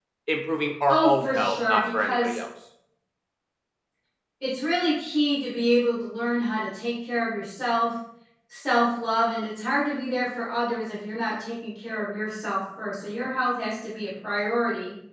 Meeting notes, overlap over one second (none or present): present